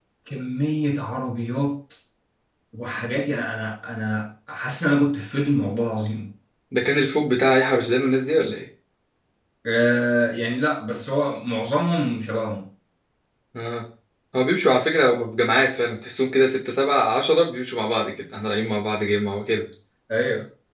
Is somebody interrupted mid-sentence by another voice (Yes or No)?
No